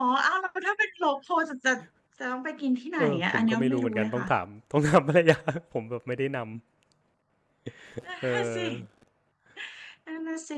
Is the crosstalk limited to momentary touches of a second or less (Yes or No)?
No